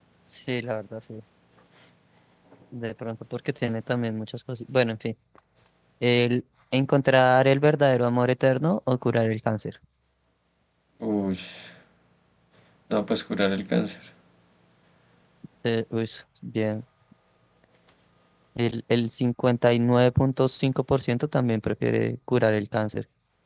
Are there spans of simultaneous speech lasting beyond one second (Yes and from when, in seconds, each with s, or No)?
No